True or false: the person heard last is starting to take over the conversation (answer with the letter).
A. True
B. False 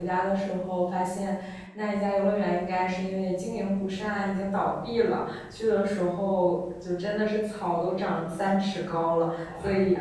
B